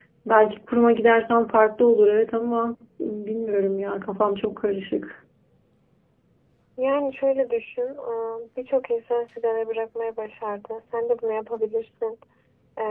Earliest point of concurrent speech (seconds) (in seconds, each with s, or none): none